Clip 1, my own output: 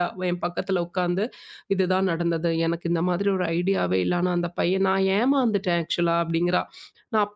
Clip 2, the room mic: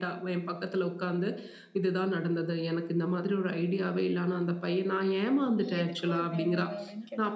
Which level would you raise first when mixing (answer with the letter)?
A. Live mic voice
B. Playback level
A